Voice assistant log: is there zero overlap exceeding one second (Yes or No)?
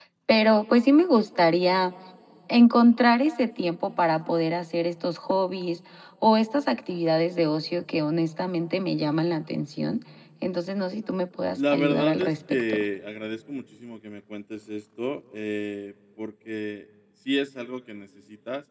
No